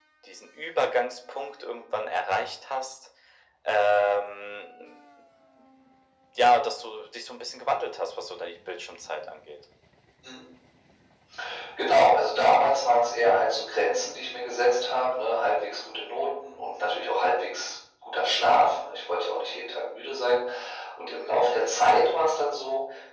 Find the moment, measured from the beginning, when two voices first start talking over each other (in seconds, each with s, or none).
none